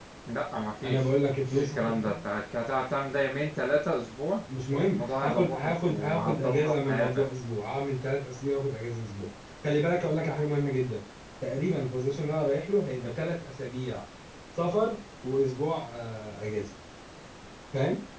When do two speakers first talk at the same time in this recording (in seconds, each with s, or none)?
0.8 s